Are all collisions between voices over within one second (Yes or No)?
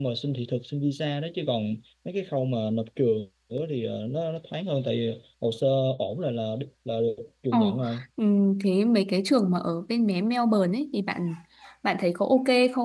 Yes